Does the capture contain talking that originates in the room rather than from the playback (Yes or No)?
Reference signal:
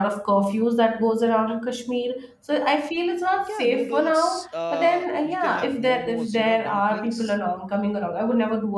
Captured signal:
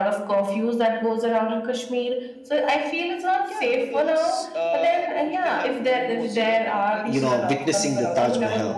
Yes